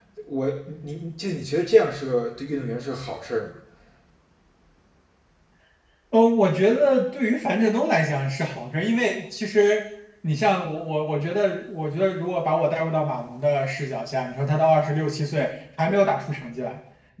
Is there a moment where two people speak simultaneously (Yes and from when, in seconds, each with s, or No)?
No